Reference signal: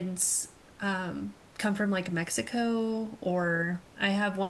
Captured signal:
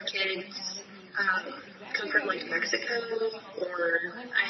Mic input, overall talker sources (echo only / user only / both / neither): both